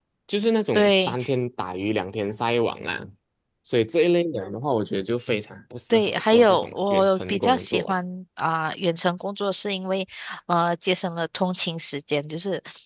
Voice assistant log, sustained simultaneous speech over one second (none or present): present